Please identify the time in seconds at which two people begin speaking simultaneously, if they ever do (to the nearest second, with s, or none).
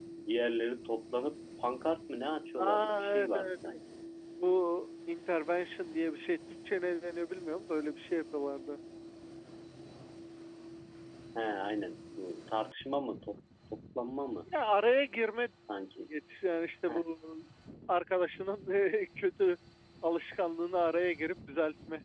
3 s